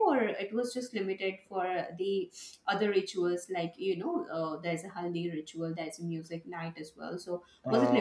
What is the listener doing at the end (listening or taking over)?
listening